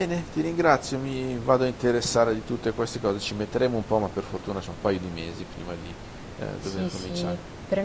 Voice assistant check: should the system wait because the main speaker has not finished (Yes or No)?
No